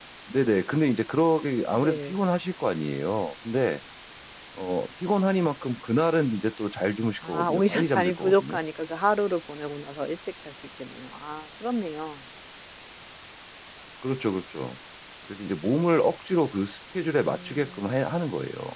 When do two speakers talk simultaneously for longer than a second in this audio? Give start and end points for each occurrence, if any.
7.2-8.6

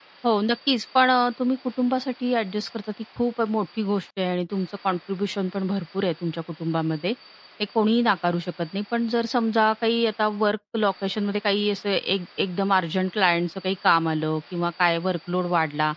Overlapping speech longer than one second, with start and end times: none

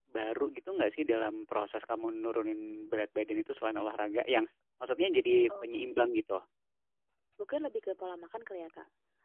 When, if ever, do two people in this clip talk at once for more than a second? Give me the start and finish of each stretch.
none

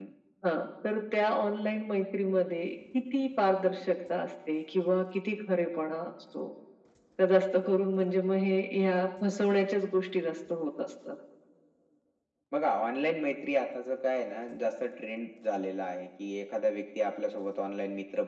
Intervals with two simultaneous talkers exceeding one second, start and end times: none

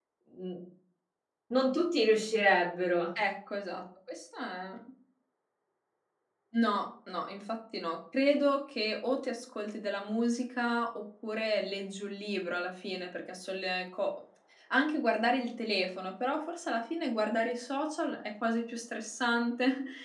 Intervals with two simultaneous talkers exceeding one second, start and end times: none

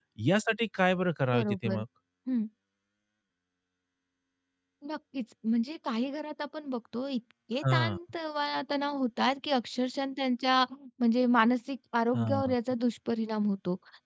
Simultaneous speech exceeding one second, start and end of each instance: none

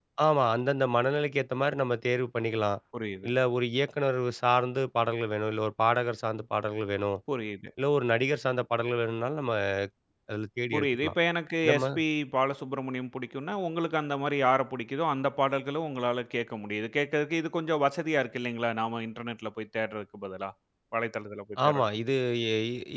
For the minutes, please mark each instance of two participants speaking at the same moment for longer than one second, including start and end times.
none

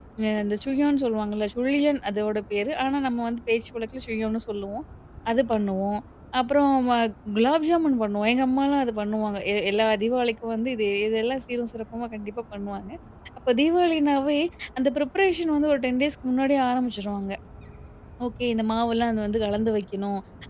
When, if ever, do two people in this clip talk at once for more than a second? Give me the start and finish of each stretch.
none

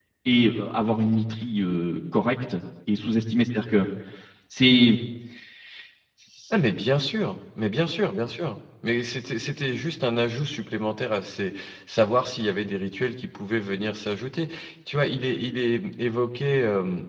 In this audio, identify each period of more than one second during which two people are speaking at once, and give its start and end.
none

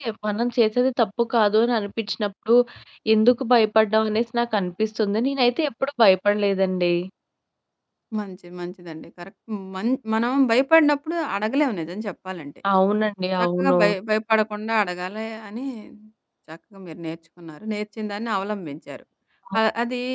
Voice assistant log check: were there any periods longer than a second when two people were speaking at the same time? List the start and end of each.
none

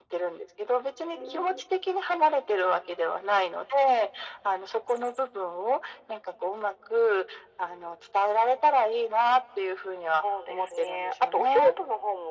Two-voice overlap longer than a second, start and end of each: 10.5-11.7

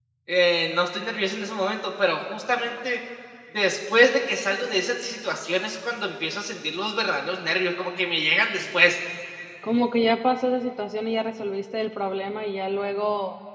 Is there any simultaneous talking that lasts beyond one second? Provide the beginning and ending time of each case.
none

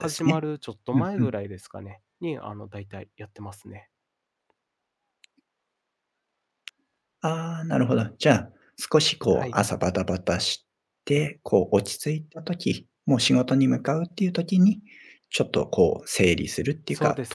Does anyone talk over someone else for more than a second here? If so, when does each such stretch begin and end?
none

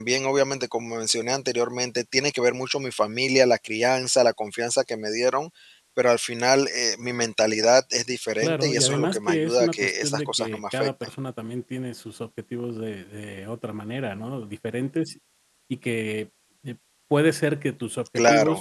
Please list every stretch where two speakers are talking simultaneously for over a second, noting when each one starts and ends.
8.4-10.9

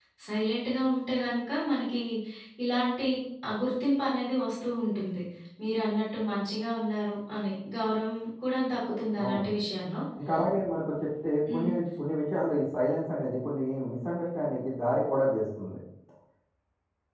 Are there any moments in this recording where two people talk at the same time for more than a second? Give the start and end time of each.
none

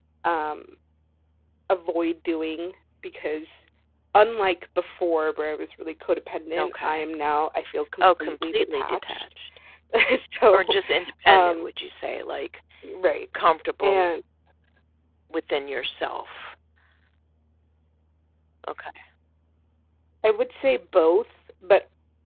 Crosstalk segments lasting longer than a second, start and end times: 8.0-9.2

